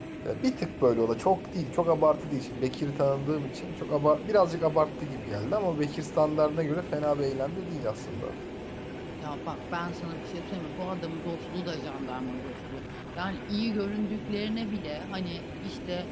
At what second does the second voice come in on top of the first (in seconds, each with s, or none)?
none